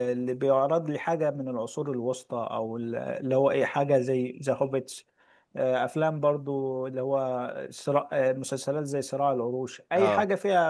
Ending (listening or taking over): listening